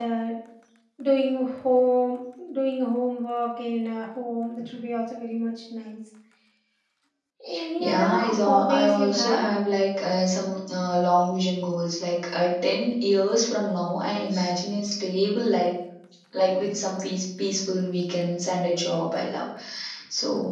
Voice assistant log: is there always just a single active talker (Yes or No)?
No